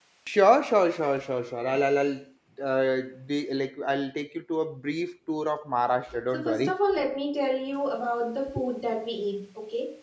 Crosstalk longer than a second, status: none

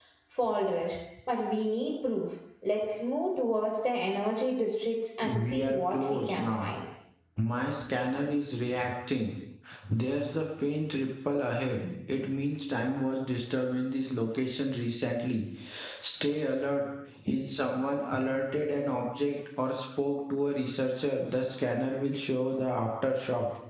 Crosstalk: present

